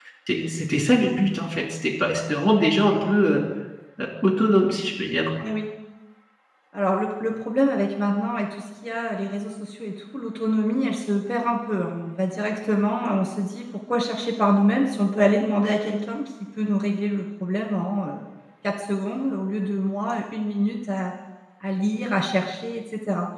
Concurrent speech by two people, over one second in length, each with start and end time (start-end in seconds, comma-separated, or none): none